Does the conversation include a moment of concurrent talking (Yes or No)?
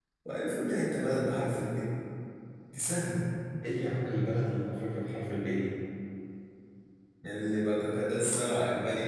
No